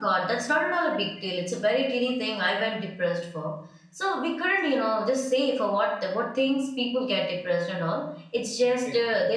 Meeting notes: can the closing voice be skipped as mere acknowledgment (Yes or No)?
Yes